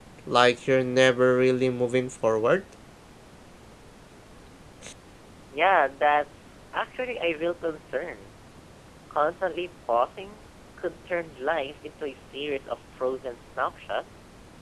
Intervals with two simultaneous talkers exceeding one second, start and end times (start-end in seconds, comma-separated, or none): none